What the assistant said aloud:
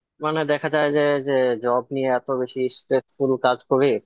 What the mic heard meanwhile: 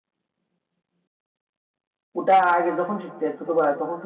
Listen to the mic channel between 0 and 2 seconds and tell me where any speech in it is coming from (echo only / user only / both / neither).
neither